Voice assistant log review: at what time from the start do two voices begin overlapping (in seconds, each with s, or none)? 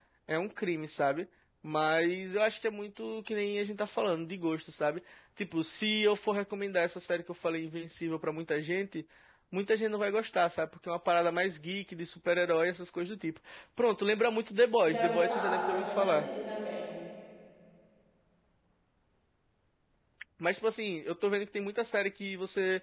14.8 s